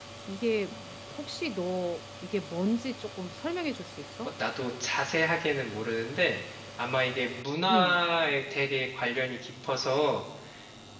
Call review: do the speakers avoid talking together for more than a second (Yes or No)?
Yes